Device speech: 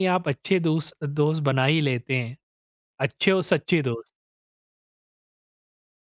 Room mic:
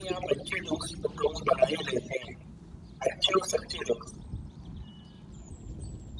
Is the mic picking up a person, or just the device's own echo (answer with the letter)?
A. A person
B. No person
B